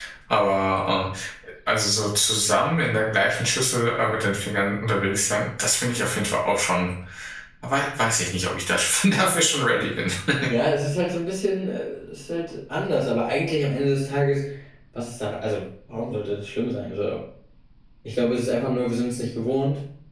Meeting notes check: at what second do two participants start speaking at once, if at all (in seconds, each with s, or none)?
none